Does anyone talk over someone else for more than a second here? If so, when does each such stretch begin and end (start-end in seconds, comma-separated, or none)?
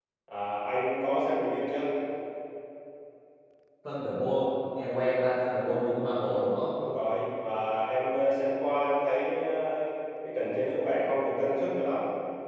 none